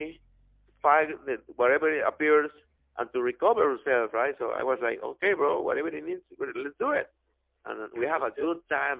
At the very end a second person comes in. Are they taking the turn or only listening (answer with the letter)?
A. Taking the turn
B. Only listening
B